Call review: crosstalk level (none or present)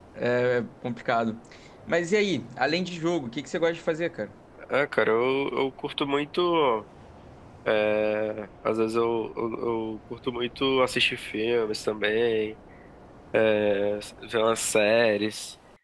none